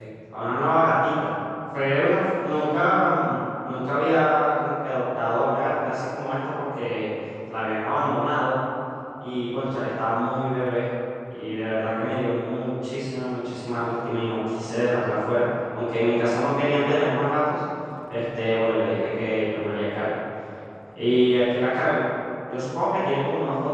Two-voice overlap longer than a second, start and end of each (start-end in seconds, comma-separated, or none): none